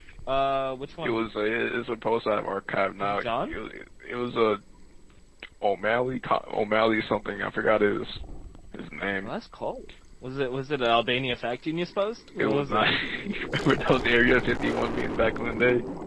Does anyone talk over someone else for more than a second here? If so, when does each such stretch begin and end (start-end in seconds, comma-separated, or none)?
none